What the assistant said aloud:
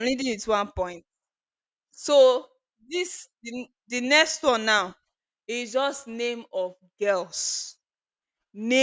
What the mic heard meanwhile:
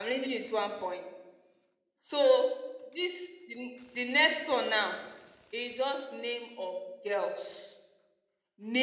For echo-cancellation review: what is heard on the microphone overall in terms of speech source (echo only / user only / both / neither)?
echo only